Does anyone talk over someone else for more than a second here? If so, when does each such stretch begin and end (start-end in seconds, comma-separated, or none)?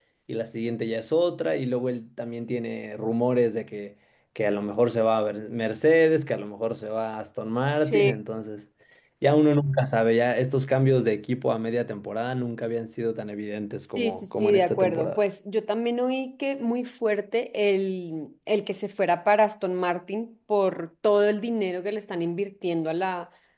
14.0-15.2